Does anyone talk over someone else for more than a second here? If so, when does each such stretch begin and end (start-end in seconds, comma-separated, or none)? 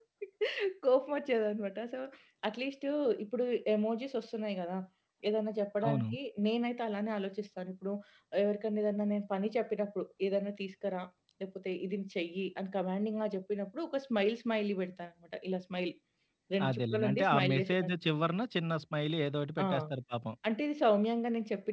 16.7-17.9